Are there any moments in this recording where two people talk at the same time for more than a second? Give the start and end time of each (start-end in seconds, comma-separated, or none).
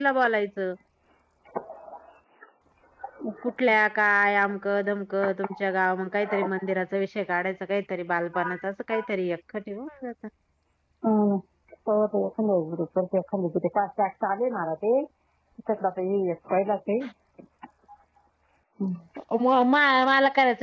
none